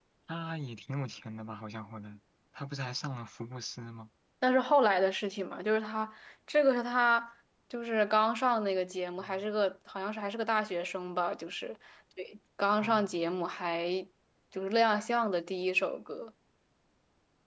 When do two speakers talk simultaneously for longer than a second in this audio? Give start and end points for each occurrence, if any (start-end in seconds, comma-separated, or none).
none